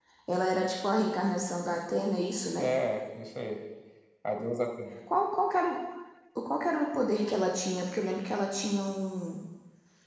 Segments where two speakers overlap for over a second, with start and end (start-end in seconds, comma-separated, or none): none